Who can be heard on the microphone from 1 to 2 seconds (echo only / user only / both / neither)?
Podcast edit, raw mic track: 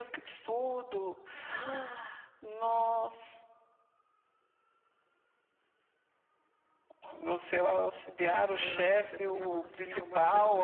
echo only